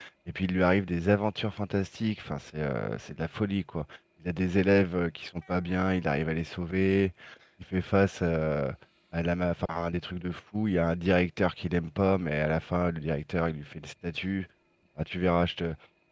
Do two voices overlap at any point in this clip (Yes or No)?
No